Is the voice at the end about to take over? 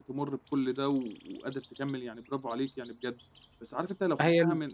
No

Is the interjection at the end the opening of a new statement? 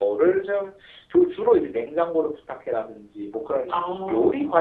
No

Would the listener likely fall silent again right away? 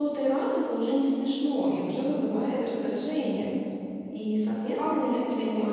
No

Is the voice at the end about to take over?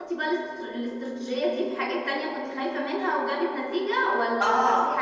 Yes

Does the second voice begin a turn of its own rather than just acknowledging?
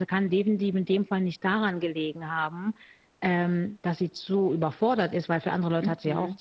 Yes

